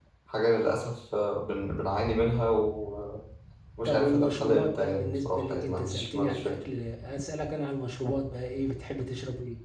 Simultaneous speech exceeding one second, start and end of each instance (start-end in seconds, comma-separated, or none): 3.8-6.6